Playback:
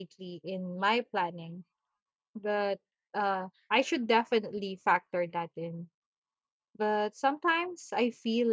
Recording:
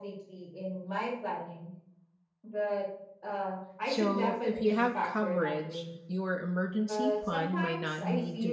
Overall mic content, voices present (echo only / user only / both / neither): both